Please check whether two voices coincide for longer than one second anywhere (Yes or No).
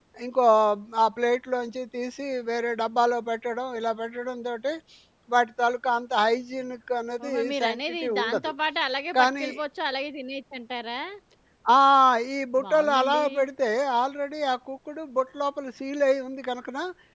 Yes